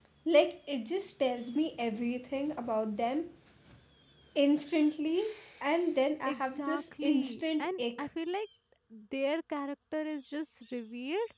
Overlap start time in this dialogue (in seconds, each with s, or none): 6.3 s